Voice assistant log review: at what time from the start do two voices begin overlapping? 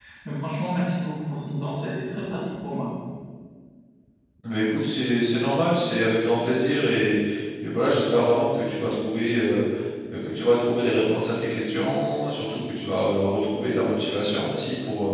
none

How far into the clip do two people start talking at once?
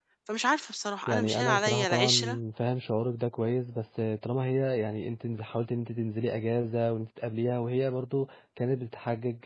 1.1 s

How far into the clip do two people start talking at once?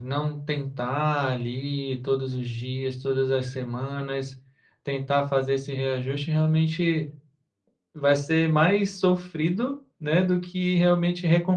none

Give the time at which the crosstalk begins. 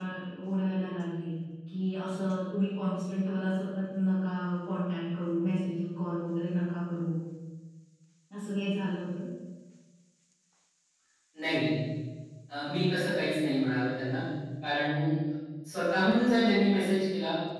none

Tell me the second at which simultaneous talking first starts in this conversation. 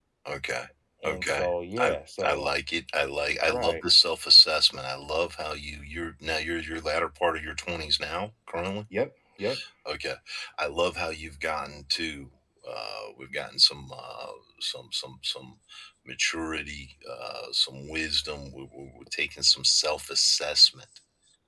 1.0 s

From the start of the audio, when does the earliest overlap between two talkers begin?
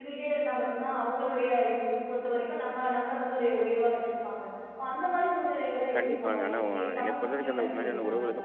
5.8 s

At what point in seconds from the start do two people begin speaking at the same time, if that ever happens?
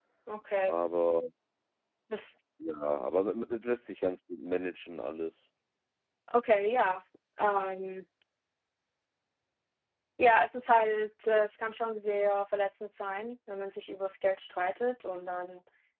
none

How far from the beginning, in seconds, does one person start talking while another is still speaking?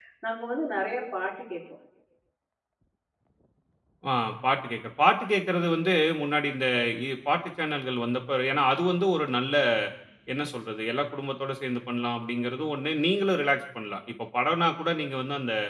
none

